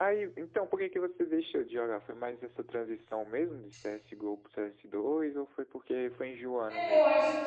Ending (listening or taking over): taking over